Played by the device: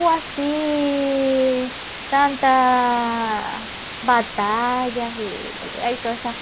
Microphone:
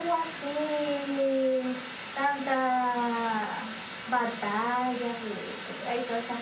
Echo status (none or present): present